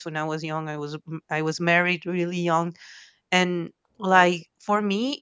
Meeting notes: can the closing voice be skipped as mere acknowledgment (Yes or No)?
Yes